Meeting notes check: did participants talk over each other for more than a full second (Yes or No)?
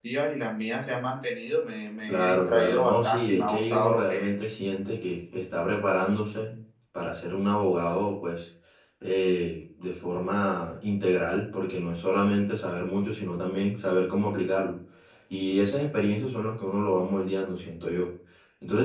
Yes